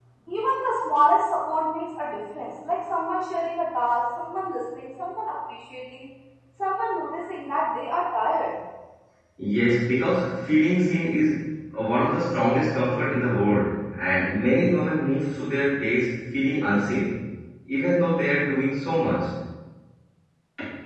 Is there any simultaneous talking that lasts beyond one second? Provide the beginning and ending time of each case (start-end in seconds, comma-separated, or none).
none